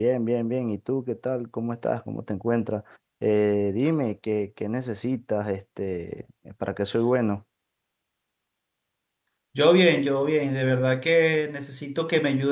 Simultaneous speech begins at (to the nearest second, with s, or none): none